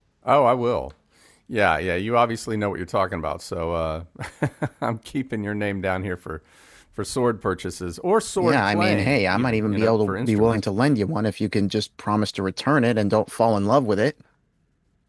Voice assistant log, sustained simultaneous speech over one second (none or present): present